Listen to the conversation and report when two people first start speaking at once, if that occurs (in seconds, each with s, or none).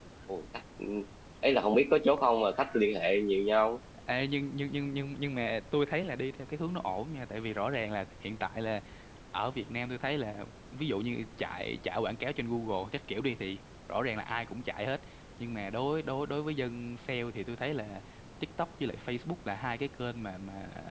none